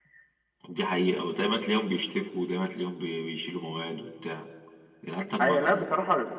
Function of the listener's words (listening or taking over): taking over